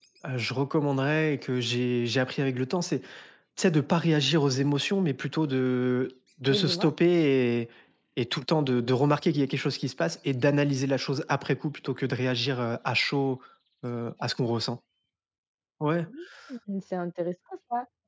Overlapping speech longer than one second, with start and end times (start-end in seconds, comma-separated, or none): none